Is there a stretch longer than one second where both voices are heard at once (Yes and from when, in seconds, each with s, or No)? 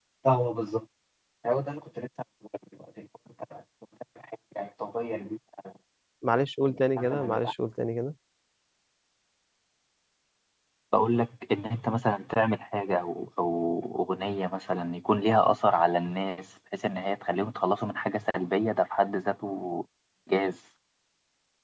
No